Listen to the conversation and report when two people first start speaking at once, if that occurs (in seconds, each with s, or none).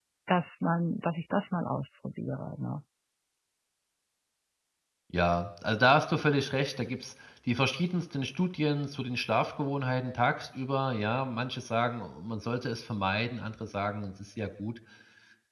none